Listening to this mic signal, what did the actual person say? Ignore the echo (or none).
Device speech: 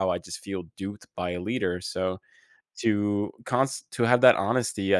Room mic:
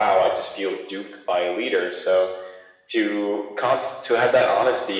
none